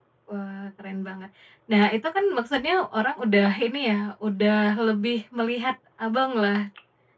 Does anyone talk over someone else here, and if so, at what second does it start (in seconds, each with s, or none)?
none